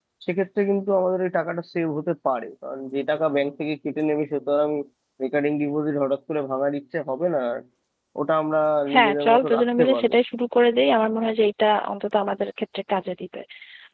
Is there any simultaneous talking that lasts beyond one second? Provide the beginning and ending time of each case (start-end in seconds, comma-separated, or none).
8.9-10.1